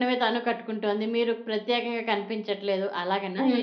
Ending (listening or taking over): taking over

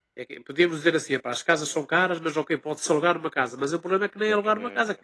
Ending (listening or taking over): listening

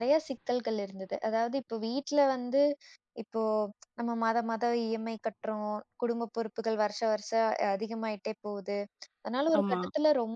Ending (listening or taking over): listening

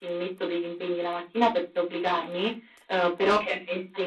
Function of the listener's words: listening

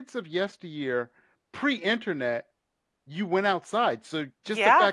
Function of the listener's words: listening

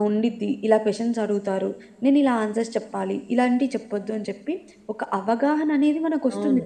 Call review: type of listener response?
taking over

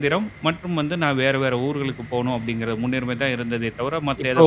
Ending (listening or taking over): taking over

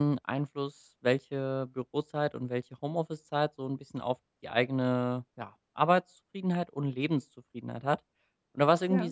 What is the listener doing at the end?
listening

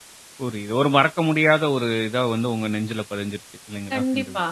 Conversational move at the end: taking over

